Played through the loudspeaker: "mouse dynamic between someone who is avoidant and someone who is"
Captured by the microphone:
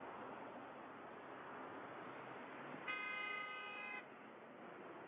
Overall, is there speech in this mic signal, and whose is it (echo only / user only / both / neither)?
neither